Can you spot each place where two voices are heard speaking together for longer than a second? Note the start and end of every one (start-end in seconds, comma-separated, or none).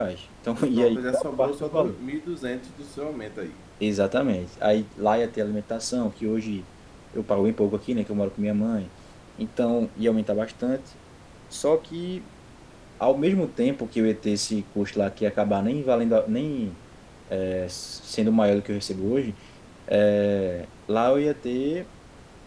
0.7-2.0